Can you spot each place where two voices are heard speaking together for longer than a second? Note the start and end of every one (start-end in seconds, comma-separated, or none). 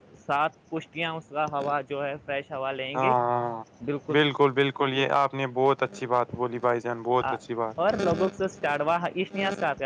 none